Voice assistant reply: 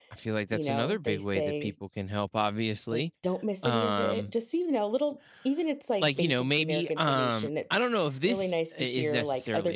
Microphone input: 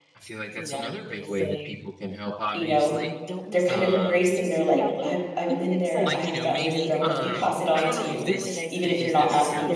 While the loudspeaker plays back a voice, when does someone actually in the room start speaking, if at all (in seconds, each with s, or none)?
2.5 s